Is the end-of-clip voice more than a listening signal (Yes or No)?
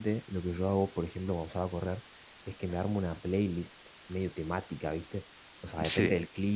No